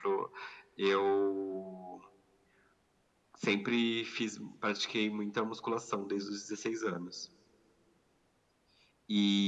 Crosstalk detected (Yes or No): No